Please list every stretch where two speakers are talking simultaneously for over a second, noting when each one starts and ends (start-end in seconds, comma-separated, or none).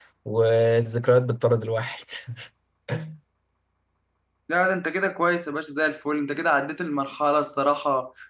none